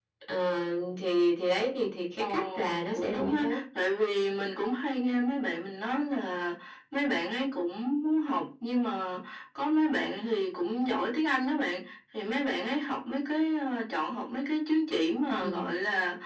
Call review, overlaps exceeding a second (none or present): present